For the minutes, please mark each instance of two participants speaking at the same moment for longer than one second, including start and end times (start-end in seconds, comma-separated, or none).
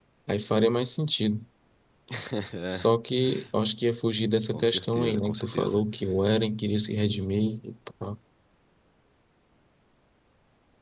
4.5-5.8